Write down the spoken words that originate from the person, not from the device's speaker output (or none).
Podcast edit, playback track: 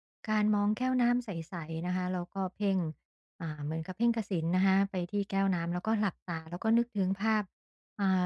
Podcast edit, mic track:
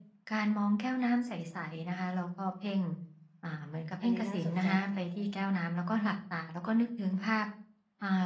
อันนี้น่าสนใจ